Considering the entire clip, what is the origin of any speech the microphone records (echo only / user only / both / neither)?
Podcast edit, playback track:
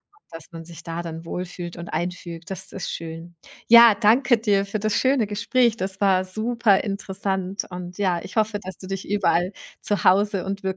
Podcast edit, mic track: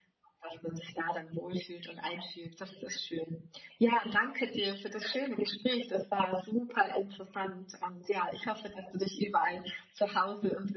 echo only